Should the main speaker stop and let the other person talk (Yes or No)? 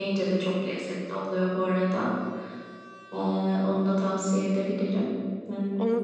Yes